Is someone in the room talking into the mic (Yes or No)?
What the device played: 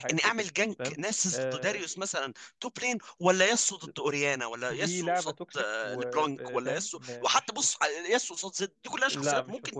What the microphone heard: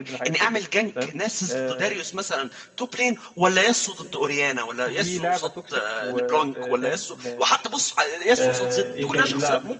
Yes